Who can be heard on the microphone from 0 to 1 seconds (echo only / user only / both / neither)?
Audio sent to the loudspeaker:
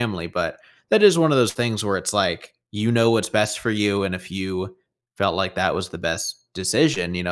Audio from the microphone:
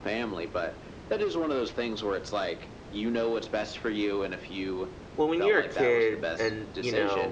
echo only